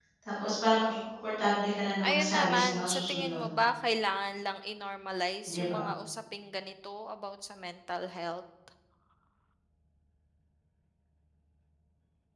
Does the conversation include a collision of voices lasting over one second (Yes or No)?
Yes